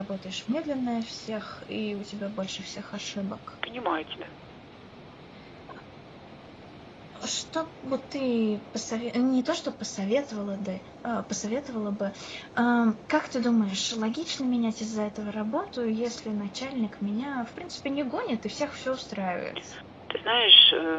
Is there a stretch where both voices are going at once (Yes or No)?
No